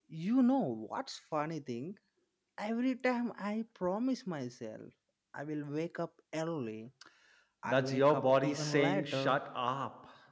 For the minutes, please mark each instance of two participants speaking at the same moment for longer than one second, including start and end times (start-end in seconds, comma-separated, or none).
7.7-9.4